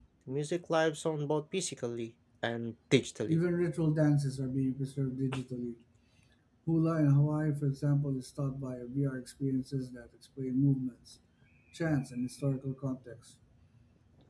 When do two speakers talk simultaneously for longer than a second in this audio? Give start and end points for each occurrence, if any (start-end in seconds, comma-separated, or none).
none